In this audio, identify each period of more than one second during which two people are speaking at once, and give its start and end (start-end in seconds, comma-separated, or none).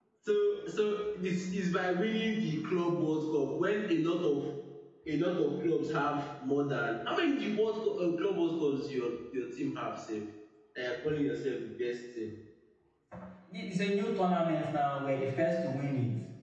none